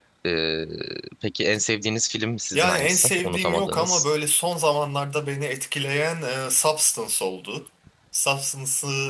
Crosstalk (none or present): present